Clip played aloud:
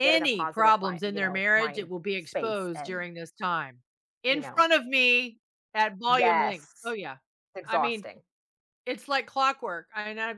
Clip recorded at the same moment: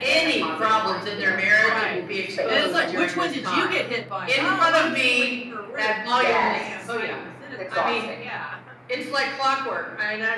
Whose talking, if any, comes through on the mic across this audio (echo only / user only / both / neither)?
both